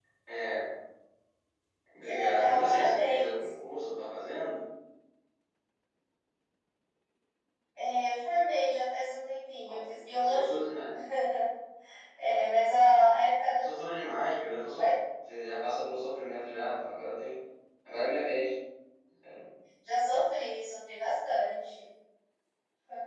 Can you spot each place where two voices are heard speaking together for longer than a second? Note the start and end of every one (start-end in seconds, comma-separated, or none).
2.0-3.3